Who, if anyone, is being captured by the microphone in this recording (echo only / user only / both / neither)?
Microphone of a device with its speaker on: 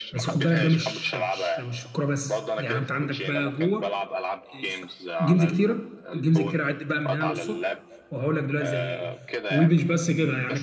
both